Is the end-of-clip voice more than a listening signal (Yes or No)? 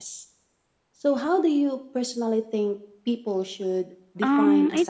Yes